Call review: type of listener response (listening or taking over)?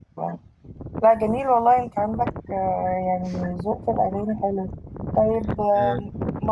listening